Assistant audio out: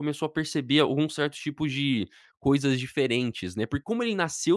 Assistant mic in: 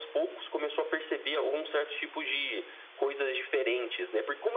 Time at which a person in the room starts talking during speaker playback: none

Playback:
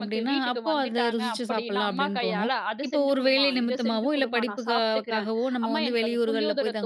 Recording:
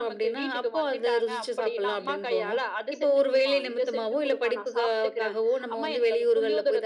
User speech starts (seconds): none

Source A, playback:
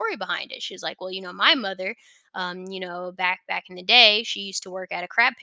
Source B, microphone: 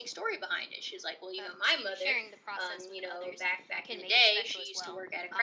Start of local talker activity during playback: 1 s

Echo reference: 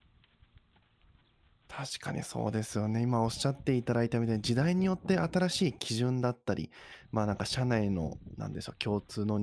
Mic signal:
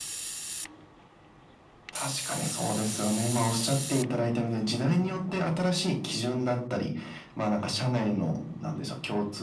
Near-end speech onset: none

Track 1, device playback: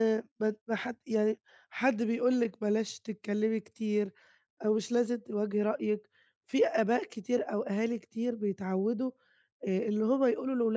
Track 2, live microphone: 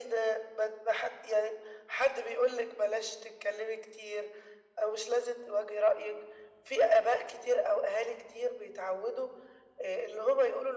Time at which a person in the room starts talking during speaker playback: none

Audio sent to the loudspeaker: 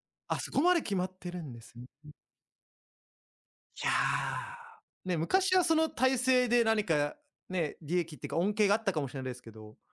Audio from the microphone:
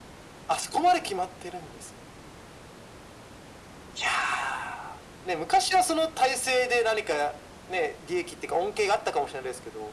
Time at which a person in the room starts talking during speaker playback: none

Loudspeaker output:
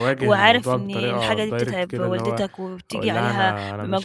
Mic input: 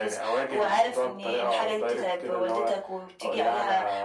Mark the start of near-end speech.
none

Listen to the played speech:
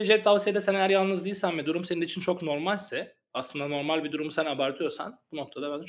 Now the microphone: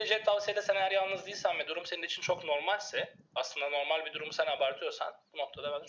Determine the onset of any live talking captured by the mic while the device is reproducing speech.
none

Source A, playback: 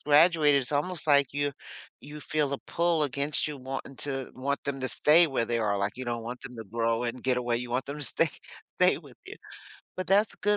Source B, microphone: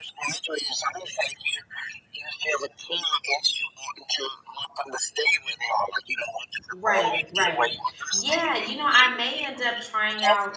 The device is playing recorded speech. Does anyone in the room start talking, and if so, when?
7 s

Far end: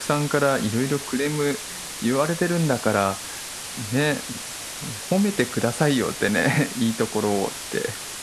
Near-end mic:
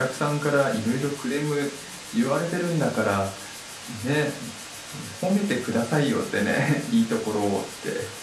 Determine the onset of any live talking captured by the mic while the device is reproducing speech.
none

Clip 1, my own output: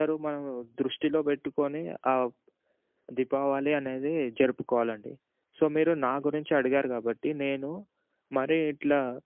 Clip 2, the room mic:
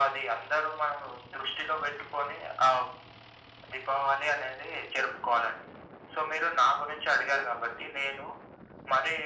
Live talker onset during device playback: none

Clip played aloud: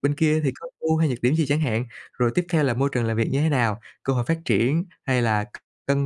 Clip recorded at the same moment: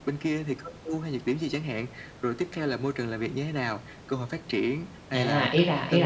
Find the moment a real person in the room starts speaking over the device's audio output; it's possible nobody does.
5 s

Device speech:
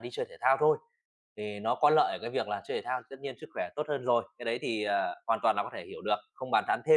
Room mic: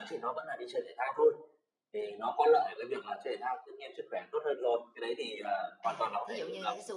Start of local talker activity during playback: 6 s

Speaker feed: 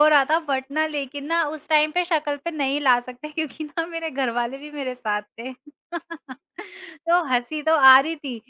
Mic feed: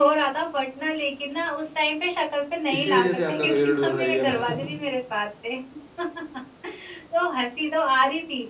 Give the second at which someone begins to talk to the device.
3 s

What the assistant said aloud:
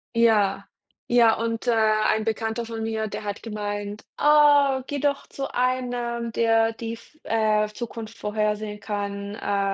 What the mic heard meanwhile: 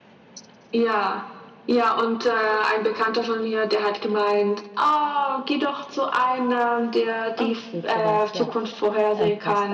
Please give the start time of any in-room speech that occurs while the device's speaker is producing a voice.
7 s

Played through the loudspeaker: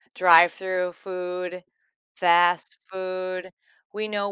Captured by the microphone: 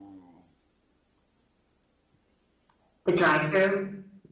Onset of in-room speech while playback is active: 3 s

